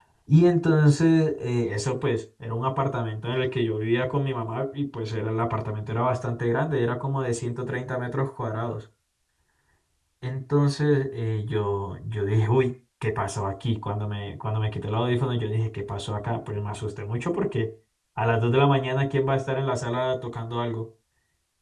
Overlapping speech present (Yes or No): No